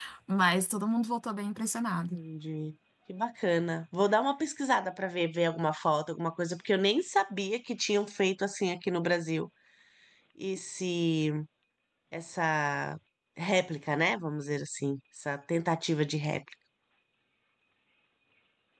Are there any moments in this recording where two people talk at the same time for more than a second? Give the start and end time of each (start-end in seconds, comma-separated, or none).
none